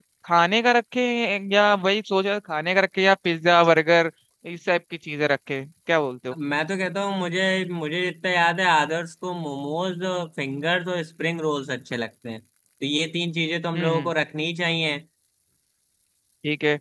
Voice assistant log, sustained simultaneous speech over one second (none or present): none